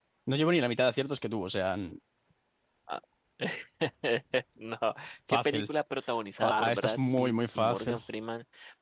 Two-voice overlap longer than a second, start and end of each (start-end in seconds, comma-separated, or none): 6.4-8.0